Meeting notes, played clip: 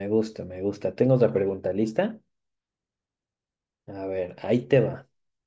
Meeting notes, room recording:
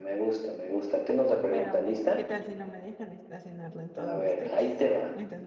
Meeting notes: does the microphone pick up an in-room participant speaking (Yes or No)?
Yes